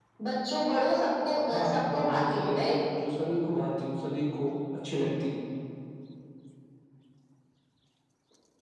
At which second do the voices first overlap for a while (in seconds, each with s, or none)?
1.5 s